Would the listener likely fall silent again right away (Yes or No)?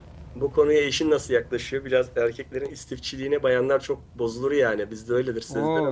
No